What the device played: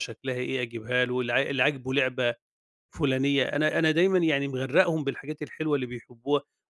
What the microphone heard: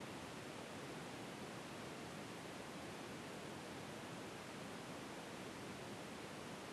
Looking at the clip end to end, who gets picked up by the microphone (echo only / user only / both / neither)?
neither